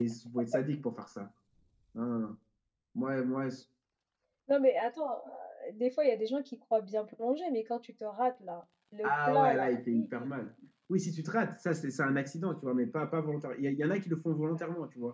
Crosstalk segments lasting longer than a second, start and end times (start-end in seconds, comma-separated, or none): 9.0-10.5